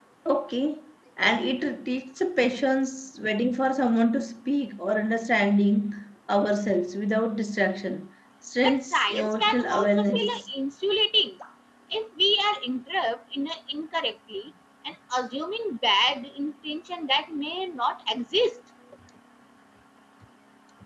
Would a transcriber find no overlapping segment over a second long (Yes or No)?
No